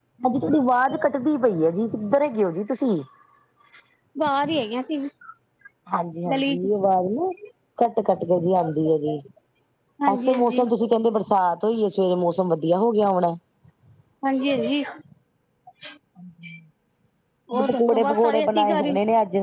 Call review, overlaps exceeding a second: present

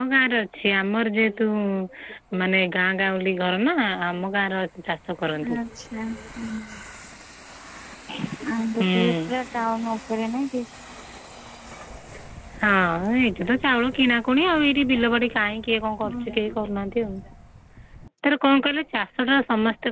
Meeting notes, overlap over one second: none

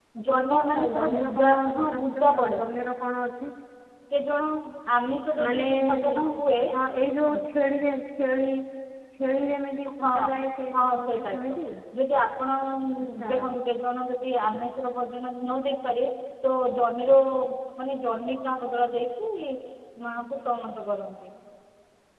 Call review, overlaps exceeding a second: present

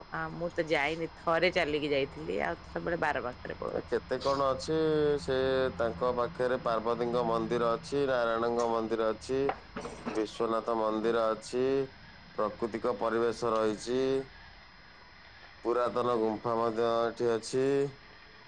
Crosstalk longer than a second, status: none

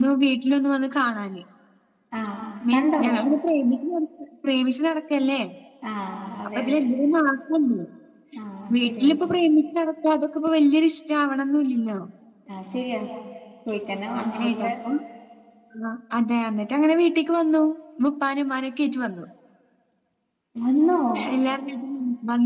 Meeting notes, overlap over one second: none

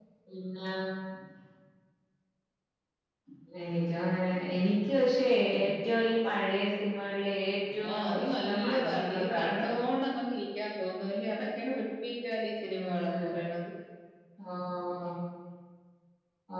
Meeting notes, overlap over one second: present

